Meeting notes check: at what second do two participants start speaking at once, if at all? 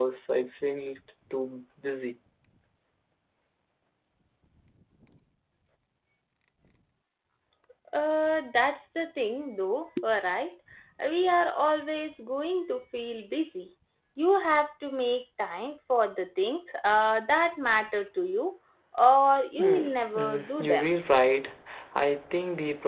19.6 s

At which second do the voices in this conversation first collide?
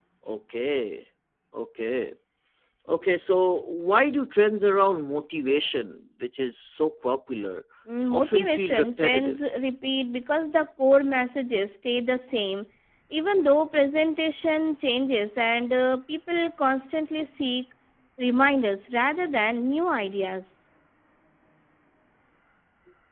8.1 s

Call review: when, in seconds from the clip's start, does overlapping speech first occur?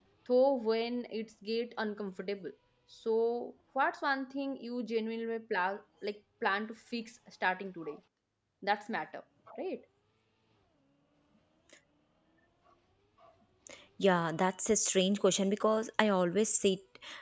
none

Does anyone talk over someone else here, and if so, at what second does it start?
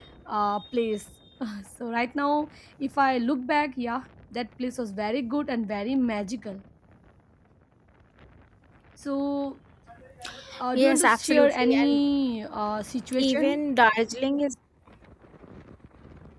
10.7 s

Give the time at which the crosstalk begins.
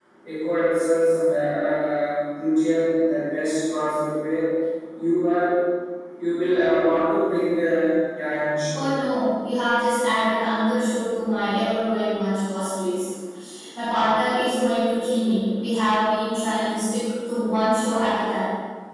none

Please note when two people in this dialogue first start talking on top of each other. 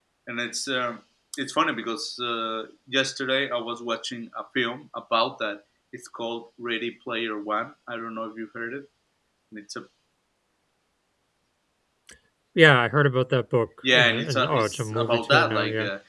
13.8 s

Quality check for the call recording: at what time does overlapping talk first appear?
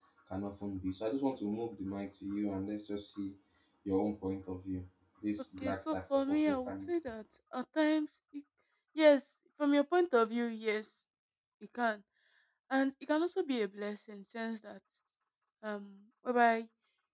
5.6 s

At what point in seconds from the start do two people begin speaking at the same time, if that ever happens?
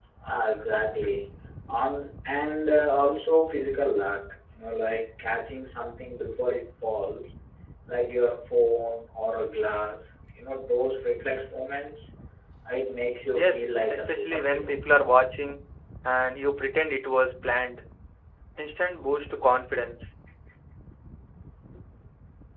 13.3 s

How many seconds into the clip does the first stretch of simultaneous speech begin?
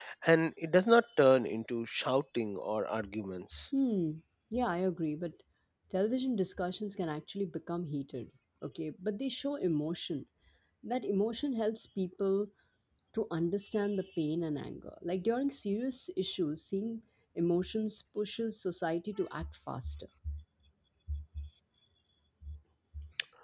none

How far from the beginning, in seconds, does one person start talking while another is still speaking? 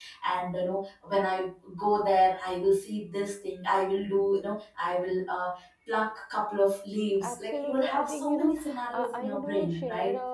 7.2 s

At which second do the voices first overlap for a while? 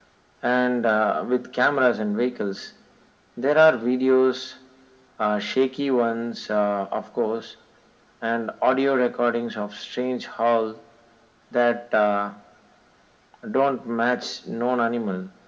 none

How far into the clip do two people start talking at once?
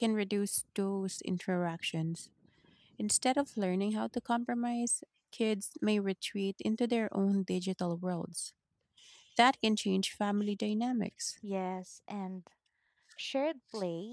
none

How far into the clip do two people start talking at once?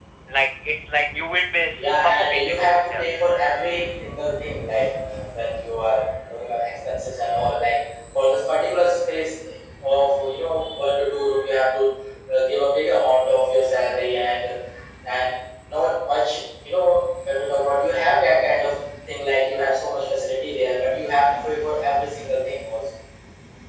1.8 s

